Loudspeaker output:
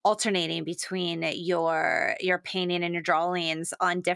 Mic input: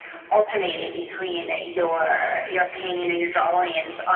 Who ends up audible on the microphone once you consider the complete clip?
echo only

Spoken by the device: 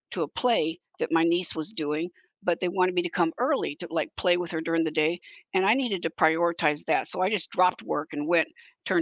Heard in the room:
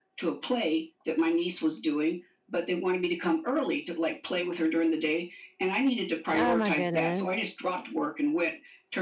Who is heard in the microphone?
both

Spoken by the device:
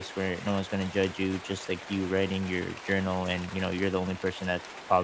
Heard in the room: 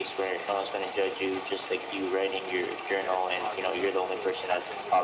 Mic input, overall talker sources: both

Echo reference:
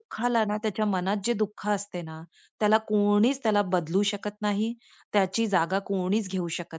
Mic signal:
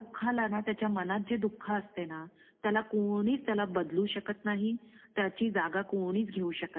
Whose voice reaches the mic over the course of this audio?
echo only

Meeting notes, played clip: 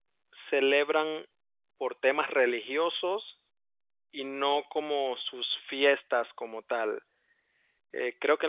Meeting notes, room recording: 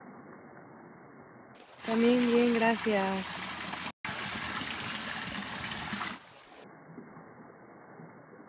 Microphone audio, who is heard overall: user only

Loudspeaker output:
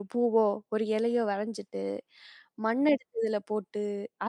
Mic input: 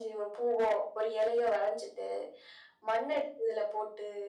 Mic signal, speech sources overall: echo only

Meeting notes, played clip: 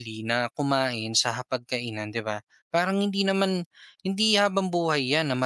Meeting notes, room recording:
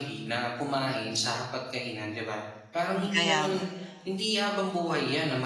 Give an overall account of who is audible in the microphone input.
both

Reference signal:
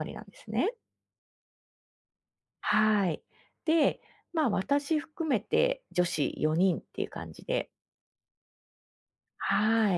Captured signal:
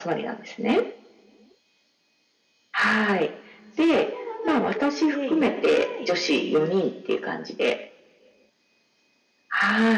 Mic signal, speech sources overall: both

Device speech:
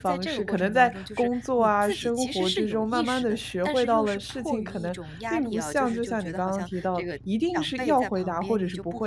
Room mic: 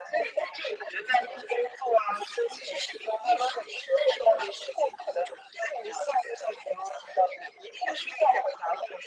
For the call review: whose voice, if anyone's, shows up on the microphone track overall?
echo only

